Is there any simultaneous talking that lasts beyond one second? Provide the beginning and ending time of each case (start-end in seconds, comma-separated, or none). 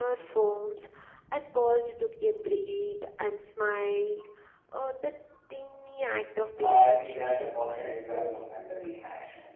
6.6-8.9